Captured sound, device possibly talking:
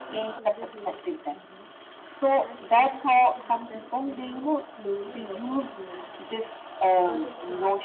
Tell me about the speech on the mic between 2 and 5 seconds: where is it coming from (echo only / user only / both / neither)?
both